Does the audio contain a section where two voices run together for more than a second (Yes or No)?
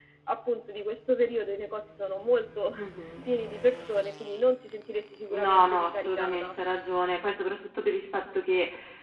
Yes